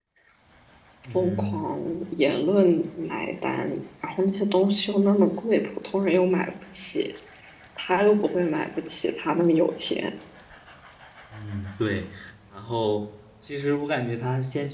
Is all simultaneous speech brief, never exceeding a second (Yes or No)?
Yes